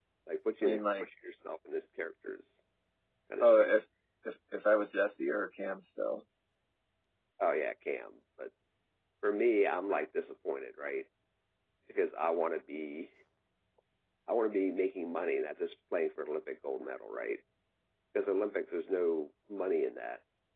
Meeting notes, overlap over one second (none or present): none